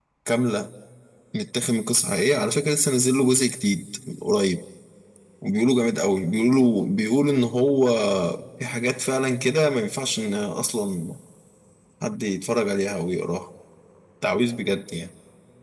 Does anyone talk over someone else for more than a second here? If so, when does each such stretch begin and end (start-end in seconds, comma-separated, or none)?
none